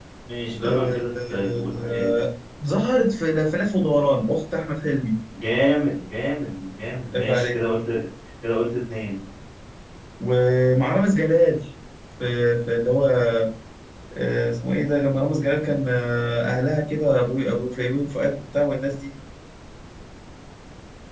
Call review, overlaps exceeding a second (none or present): present